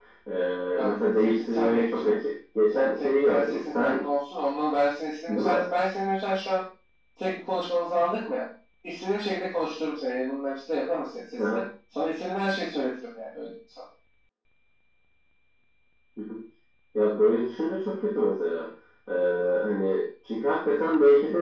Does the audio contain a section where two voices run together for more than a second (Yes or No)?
Yes